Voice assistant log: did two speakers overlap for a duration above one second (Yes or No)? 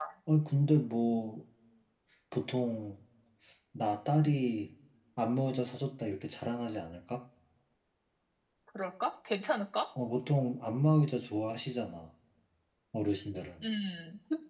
No